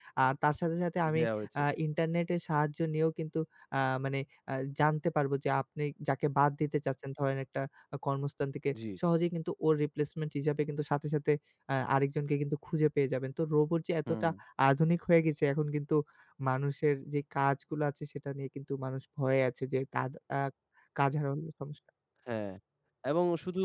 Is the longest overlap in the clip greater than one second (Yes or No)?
No